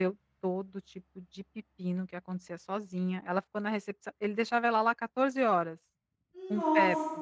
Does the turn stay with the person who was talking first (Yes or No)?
Yes